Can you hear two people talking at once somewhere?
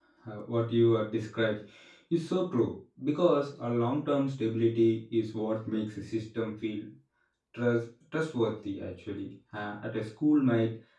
No

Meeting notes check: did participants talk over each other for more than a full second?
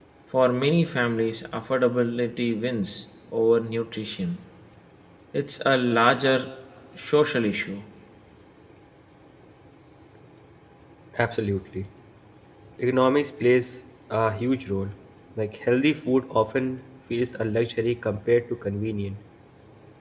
No

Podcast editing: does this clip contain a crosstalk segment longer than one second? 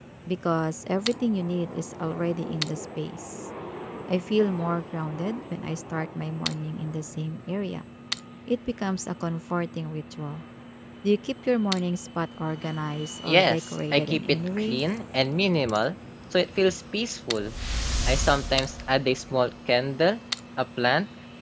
Yes, from 13.3 s

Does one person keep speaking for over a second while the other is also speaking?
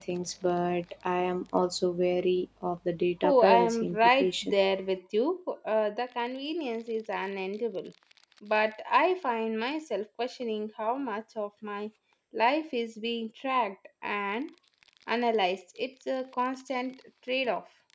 Yes, from 3.2 s

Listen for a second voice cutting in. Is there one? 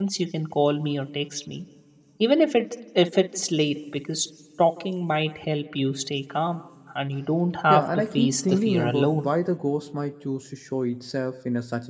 Yes, from 7.7 s

